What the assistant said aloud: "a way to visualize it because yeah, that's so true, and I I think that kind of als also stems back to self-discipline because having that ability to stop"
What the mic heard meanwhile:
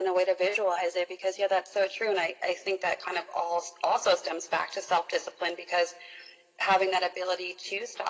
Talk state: echo only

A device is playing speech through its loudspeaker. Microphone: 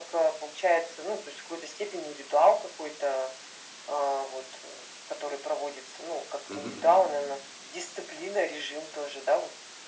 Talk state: both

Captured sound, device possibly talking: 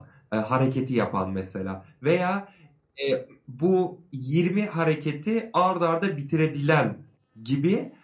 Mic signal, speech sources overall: echo only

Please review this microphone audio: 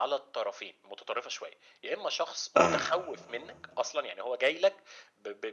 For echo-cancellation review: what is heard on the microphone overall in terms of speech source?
both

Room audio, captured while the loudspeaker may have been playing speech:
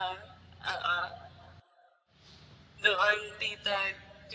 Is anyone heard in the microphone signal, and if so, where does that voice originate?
echo only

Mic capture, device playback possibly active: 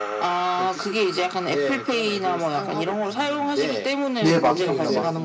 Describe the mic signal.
both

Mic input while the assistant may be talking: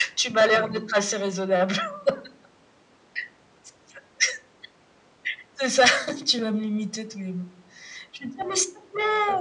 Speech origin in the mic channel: echo only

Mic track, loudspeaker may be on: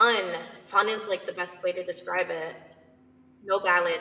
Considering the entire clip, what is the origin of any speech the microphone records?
user only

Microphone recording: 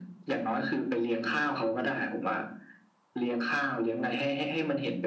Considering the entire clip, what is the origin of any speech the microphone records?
echo only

